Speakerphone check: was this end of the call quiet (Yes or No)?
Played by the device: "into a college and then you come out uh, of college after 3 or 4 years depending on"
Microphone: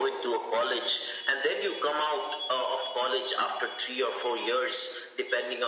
Yes